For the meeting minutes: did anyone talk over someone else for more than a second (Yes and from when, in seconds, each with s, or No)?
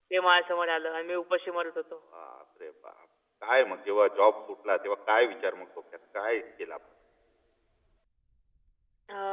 No